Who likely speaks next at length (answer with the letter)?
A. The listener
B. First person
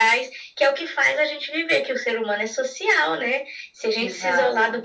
B